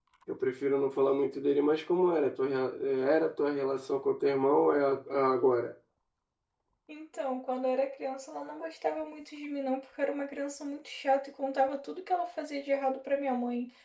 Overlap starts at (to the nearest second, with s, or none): none